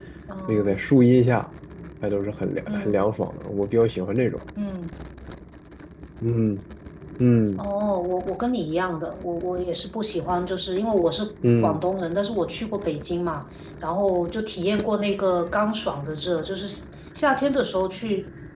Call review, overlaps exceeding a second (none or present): none